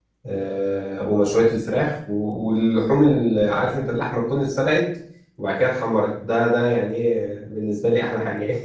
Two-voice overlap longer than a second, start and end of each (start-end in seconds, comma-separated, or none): none